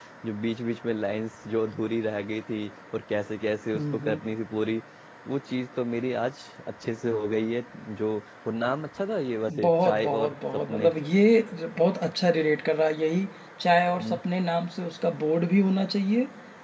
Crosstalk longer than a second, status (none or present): present